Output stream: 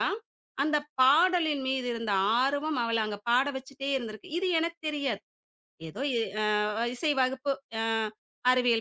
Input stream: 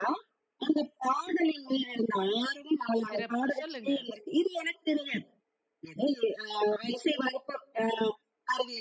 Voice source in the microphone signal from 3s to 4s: both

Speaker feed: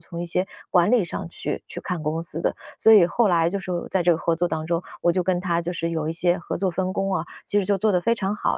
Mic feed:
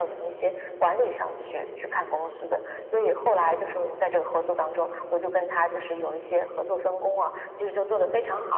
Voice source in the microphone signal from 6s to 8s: echo only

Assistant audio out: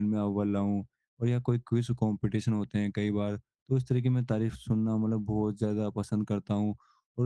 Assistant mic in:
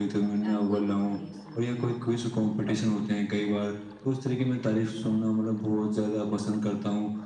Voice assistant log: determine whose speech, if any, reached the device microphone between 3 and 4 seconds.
echo only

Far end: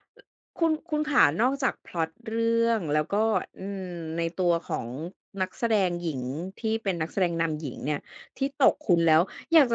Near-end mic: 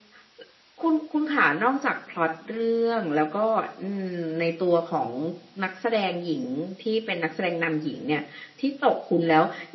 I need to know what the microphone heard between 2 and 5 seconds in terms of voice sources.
echo only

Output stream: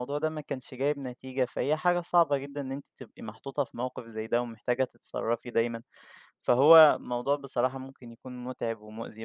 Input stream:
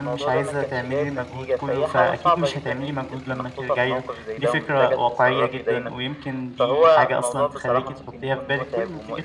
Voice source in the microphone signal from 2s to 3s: both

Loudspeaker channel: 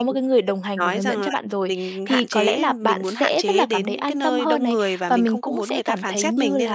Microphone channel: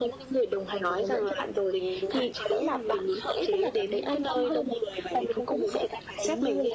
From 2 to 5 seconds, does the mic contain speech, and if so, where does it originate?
echo only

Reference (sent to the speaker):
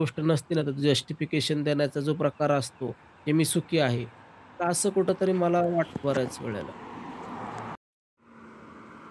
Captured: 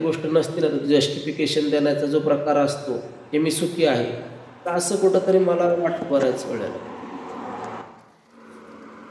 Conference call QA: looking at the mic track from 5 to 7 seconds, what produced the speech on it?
echo only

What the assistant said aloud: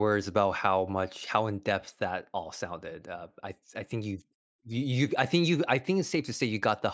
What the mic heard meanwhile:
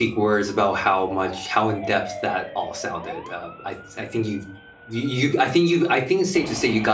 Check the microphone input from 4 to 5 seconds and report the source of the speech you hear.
echo only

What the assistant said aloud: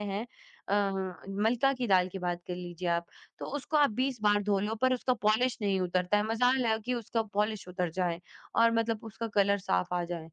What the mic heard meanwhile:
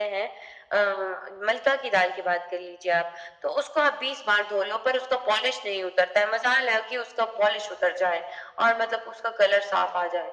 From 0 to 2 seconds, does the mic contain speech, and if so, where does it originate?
echo only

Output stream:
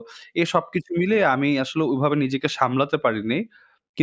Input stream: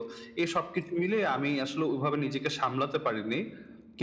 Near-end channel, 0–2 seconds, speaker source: echo only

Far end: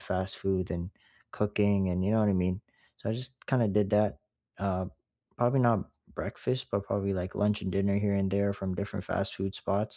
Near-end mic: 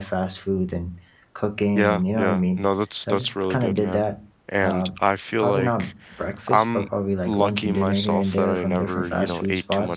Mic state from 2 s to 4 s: both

